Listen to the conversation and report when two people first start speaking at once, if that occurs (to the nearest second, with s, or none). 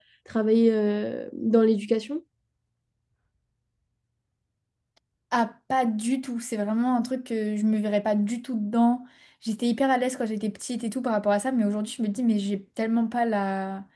none